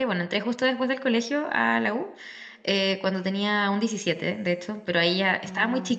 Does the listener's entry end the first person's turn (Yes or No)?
No